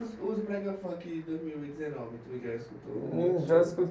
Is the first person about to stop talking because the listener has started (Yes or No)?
Yes